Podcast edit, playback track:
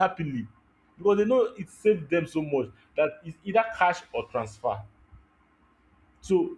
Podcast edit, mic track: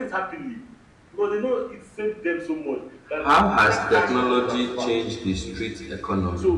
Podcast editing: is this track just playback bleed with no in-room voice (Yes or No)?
No